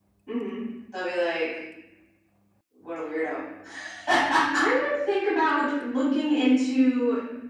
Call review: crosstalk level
none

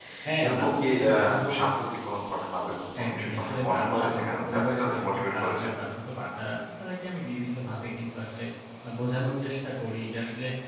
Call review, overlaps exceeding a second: present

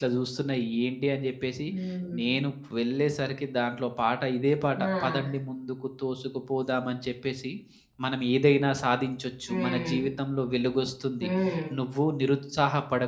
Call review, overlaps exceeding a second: none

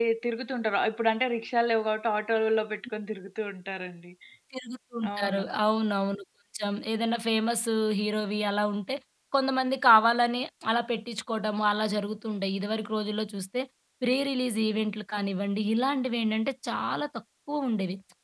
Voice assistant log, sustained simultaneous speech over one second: none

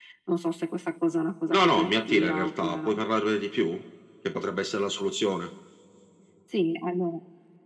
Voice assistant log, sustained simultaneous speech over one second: present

